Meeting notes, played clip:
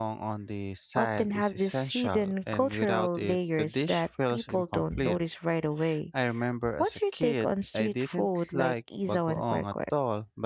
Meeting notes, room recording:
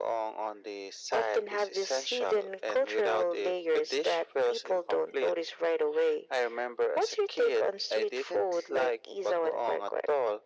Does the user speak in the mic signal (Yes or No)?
No